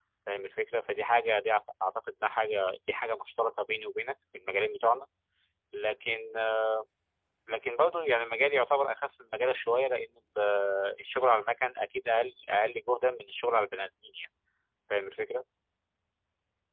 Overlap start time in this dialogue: none

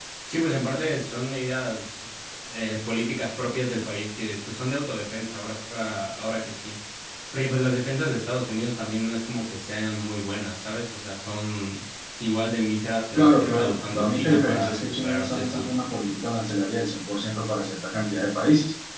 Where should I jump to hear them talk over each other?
13.2 s

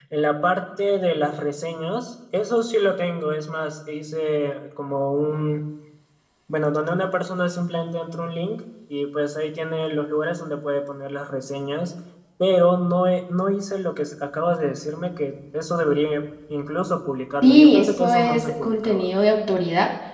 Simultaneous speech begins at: 17.4 s

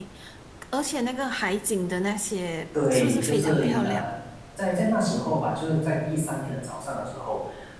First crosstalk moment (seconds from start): 2.7 s

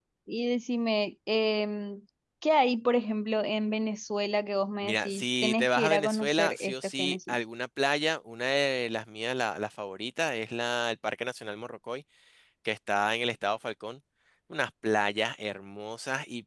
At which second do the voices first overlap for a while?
4.8 s

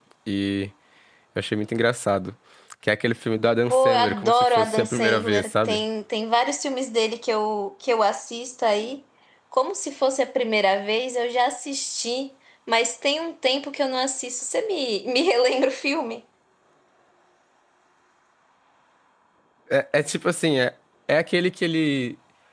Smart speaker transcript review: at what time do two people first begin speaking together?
3.7 s

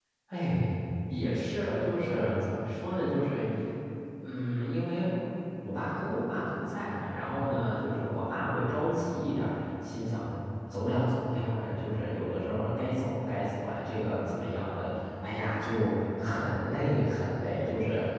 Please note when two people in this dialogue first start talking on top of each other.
none

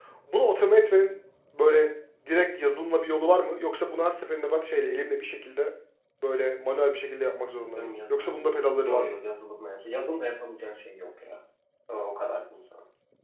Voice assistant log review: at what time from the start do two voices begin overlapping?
7.8 s

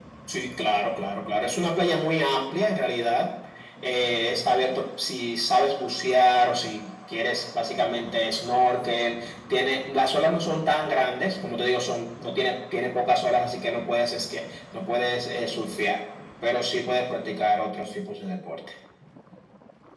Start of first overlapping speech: none

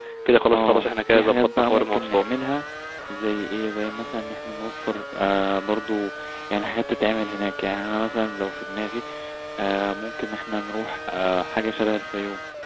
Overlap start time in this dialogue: 0.5 s

